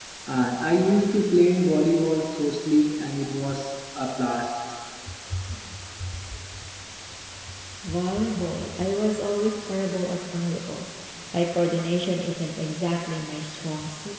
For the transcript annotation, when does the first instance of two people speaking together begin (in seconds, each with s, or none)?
none